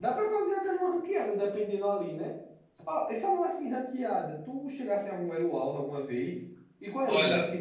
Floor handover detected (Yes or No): No